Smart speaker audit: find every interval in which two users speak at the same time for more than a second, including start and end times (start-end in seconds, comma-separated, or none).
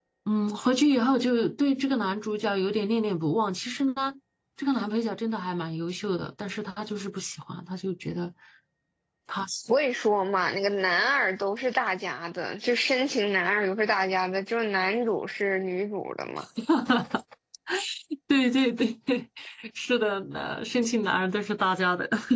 none